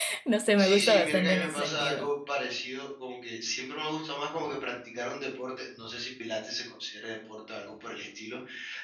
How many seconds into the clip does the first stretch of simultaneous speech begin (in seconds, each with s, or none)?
0.6 s